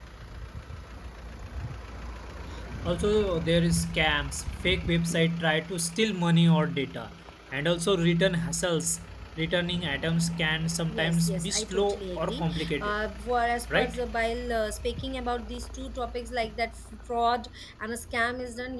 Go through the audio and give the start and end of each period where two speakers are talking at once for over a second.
10.9-12.9

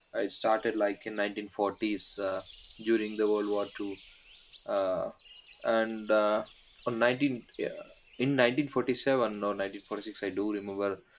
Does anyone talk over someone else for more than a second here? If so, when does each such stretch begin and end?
none

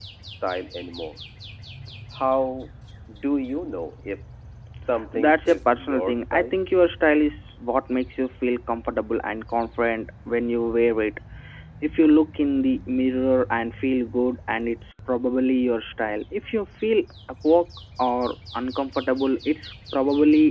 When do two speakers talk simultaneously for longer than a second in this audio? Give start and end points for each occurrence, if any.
5.1-6.6

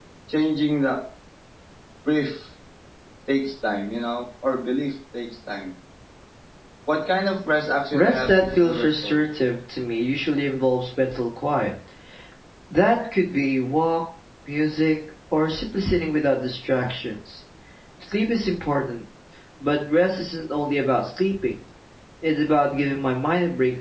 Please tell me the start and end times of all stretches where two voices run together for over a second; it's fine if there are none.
7.9-9.2

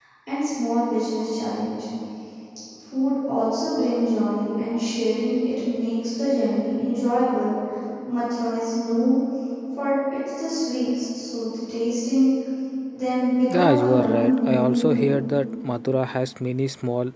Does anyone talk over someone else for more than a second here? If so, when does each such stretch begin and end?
13.5-15.1

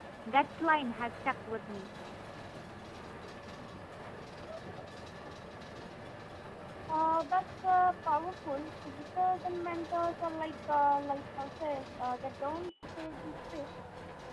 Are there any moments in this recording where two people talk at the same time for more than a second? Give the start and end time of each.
none

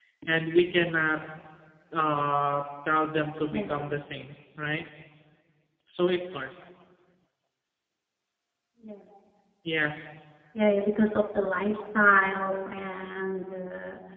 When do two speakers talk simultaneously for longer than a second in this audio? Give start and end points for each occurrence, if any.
none

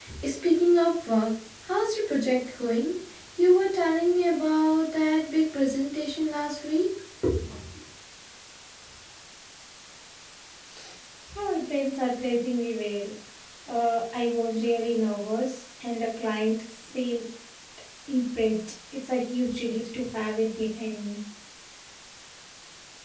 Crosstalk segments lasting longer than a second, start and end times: none

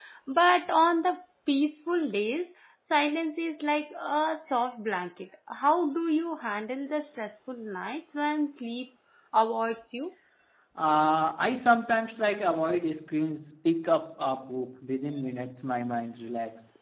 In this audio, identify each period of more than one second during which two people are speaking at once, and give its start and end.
none

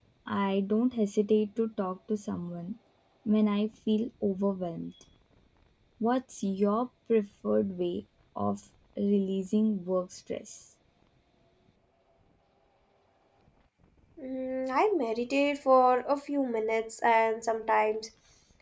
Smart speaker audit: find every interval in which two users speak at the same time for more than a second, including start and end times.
none

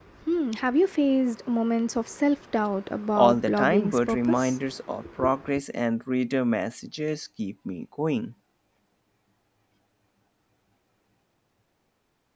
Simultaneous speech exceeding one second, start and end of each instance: 3.1-4.6

